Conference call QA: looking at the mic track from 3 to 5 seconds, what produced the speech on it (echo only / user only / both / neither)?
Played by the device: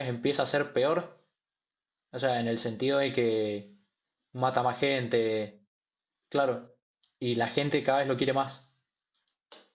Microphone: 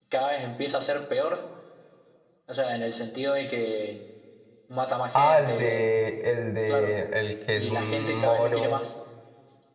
echo only